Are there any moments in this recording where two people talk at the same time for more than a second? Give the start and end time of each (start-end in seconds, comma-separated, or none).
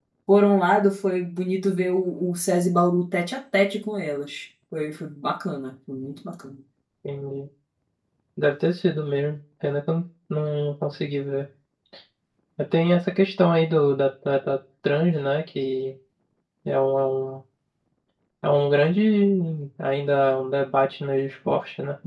none